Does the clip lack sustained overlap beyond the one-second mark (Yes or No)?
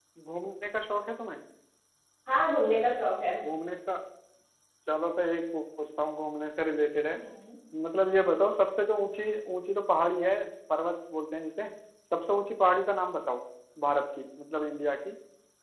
Yes